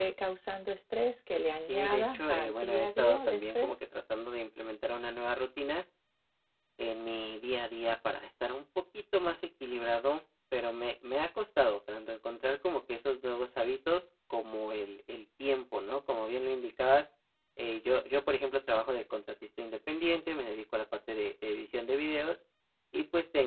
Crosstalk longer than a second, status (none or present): present